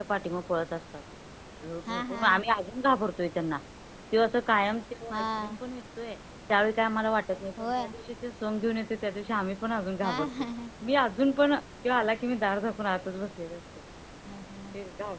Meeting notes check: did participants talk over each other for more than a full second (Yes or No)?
No